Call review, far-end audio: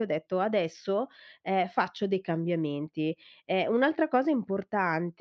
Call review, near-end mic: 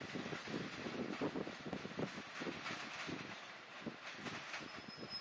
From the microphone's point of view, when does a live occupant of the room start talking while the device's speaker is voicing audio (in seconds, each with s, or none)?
none